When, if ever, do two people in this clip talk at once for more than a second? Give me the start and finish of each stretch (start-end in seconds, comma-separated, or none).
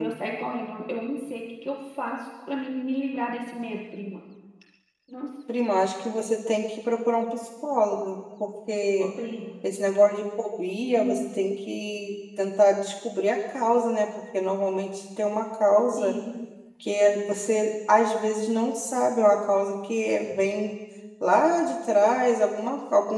none